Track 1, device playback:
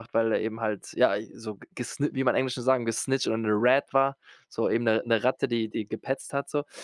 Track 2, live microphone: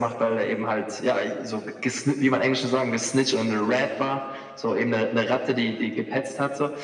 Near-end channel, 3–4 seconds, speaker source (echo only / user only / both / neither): echo only